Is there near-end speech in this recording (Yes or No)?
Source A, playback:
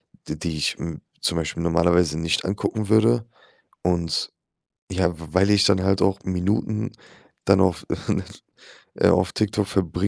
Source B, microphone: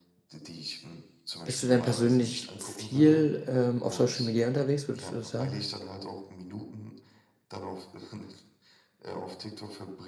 Yes